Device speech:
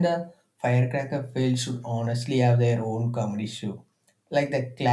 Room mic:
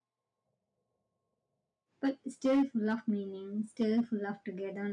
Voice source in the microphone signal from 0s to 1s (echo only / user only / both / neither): neither